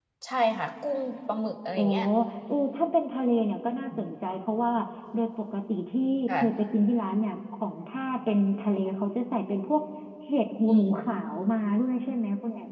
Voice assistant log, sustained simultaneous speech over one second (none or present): none